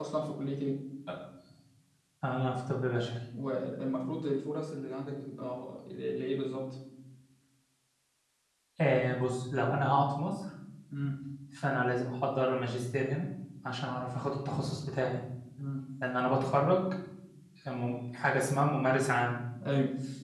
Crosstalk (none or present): none